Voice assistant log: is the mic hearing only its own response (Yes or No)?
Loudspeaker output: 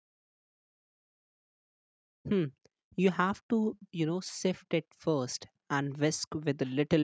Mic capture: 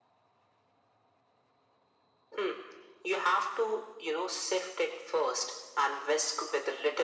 Yes